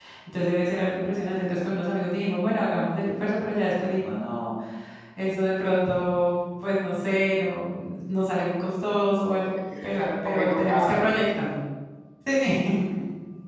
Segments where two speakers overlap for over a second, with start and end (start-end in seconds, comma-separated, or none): 9.8-11.5